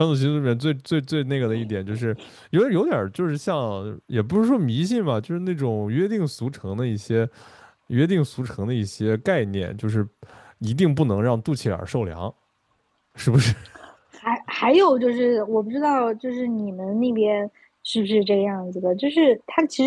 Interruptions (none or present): none